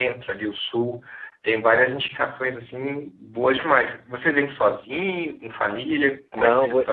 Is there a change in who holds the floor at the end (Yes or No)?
Yes